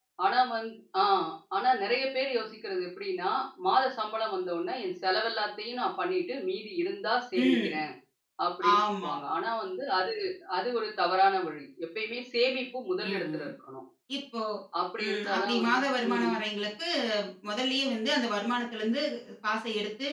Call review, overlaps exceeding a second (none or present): present